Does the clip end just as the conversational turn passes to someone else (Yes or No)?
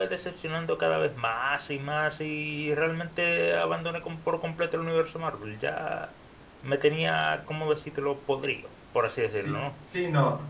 Yes